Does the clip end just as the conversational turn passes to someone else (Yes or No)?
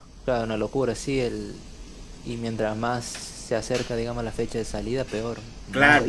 Yes